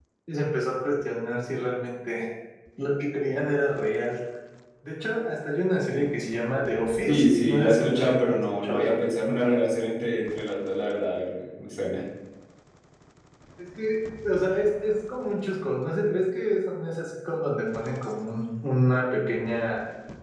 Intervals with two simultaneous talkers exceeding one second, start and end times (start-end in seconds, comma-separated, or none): 7.1-8.9